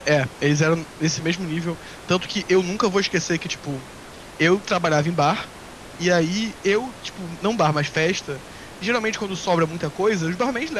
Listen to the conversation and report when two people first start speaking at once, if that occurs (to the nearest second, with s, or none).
none